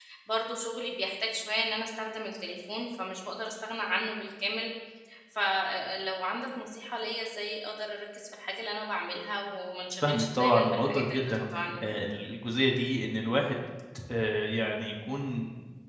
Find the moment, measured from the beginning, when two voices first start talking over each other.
10.0 s

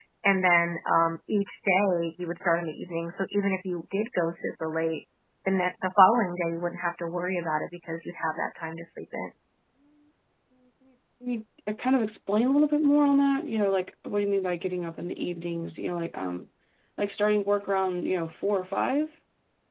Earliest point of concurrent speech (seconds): none

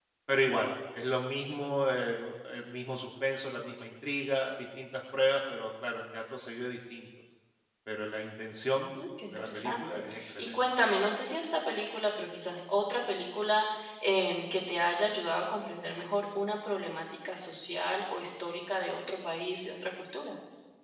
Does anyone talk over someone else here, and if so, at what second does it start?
9.3 s

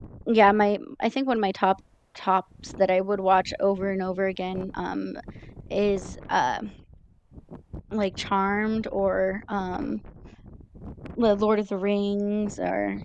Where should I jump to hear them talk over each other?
none

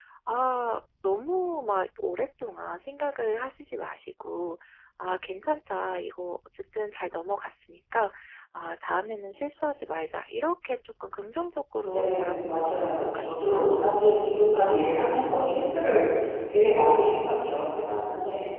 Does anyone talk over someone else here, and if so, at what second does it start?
11.8 s

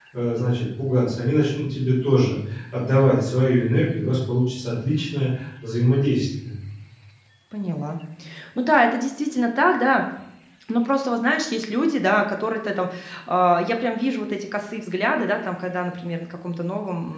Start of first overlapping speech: none

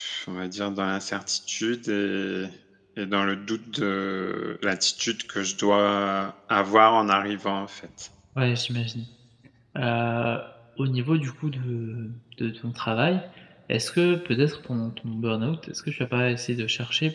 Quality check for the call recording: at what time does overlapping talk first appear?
none

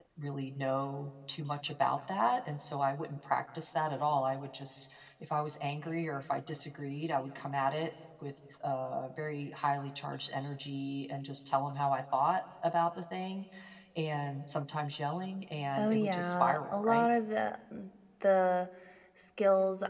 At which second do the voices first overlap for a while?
15.8 s

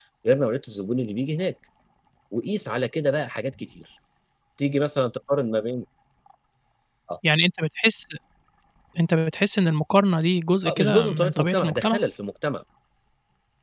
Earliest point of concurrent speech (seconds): 10.6 s

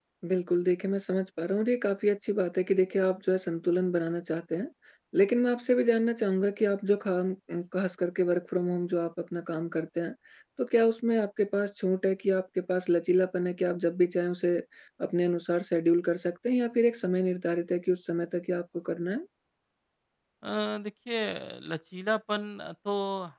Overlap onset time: none

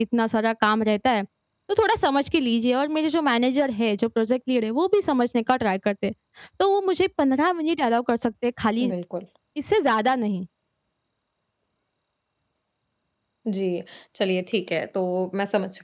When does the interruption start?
none

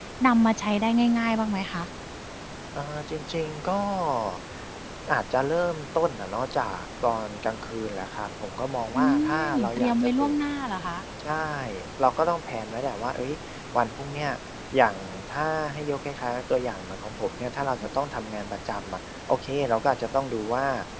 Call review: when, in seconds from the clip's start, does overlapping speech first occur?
8.9 s

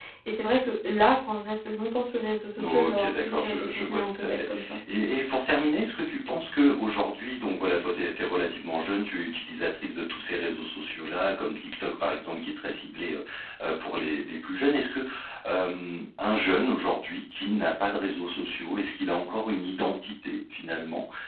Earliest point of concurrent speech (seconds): 2.6 s

